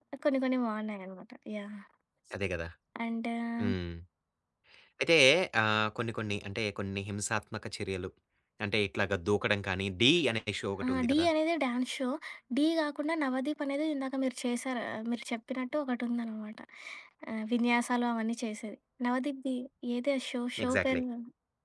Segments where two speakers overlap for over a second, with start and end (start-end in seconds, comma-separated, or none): none